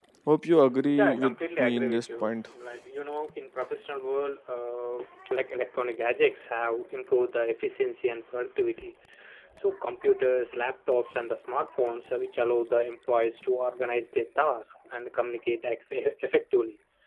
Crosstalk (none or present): present